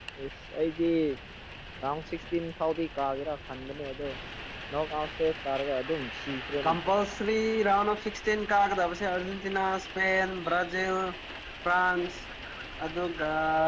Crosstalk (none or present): none